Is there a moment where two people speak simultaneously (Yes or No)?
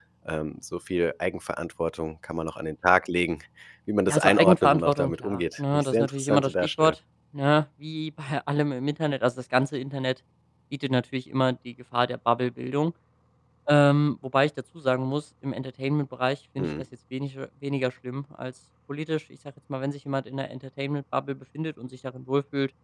Yes